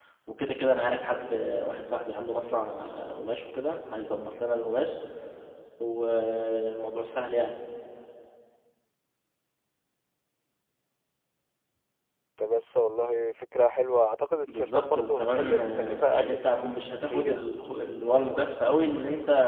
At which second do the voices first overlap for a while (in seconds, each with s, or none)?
14.5 s